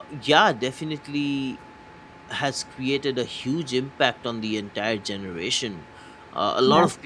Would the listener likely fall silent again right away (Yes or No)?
Yes